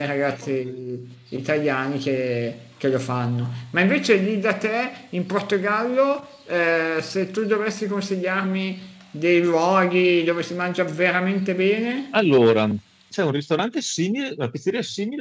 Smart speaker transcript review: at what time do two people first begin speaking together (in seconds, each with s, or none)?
none